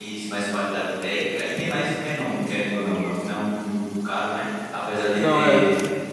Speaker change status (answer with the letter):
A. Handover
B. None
B